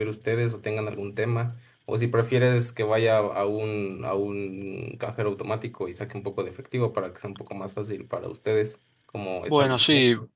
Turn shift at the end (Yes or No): Yes